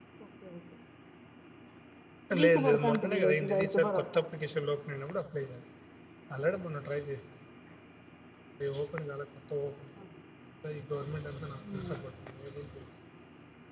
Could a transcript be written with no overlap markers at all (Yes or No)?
No